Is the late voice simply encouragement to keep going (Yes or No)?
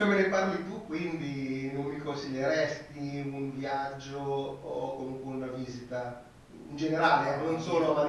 Yes